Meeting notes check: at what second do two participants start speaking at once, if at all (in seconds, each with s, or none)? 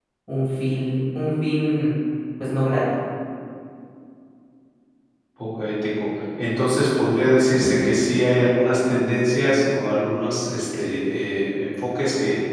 none